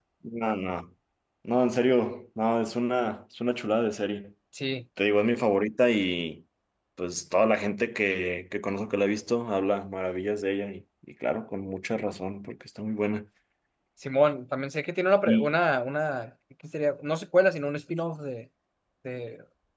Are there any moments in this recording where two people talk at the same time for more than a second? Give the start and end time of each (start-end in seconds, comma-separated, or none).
none